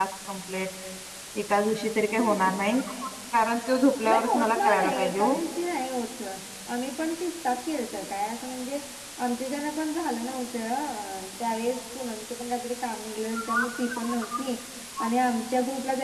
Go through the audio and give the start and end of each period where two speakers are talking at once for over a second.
4.1-5.4

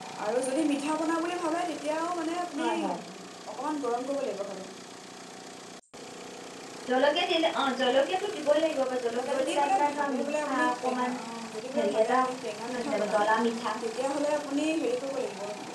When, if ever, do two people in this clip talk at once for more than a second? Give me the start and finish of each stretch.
9.2-11.2

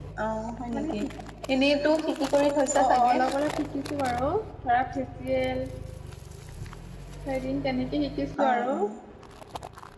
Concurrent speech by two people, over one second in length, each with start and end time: none

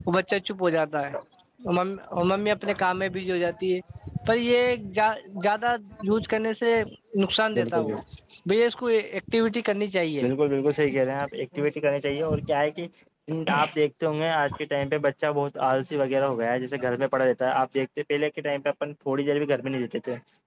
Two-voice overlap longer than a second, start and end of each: none

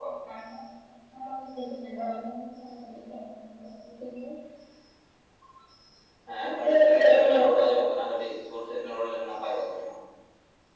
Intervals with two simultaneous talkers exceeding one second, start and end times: 6.5-7.8

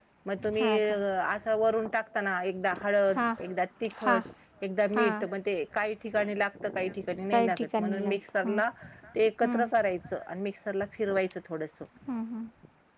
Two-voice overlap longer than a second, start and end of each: 7.3-8.6

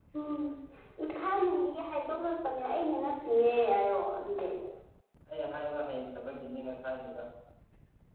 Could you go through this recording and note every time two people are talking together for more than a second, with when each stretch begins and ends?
none

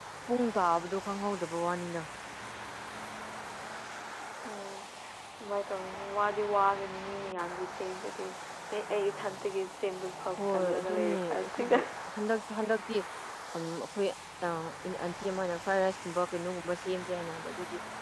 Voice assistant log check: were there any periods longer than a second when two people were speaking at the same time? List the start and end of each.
10.4-11.8

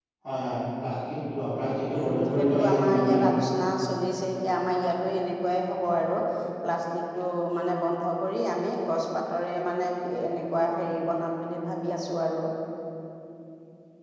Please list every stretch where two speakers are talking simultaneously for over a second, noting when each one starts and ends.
1.9-3.2

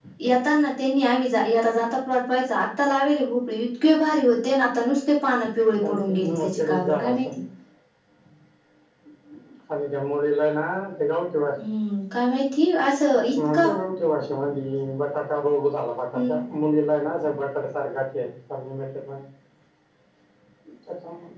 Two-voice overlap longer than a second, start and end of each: 5.8-7.3

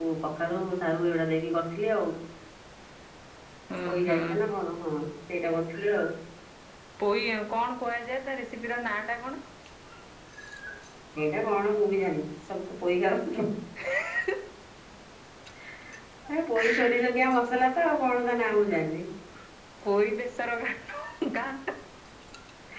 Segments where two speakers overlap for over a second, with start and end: none

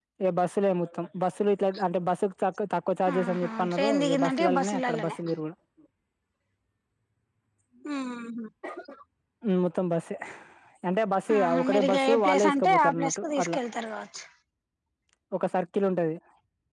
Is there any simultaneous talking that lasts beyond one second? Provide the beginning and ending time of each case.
3.3-5.1, 11.4-13.6

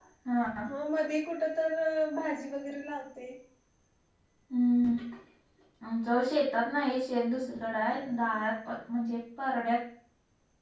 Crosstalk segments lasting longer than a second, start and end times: none

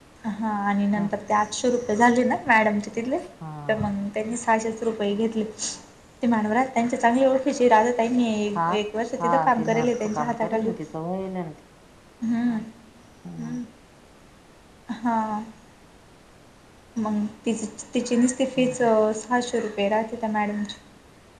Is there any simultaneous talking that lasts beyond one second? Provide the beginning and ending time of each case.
9.2-10.7

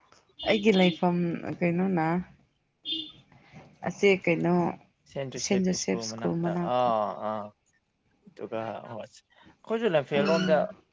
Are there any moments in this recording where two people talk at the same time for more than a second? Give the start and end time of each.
5.4-6.7

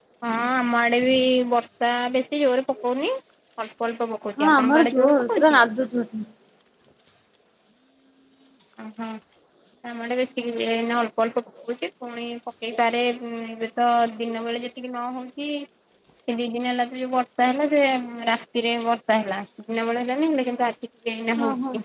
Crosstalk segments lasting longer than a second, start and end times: 4.4-5.6

